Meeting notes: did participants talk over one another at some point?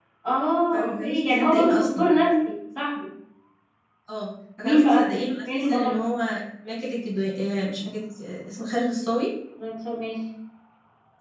Yes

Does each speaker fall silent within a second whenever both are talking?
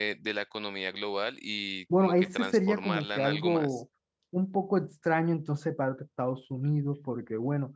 No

